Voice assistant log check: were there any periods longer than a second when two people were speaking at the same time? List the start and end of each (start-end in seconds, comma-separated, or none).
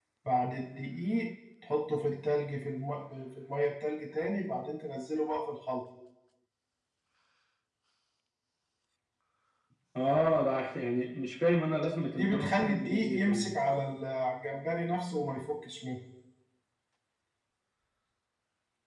12.1-13.5